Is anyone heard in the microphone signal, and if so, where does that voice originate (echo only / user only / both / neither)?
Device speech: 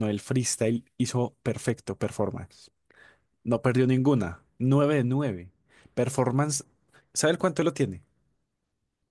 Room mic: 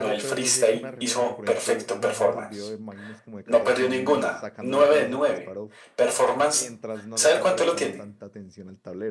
both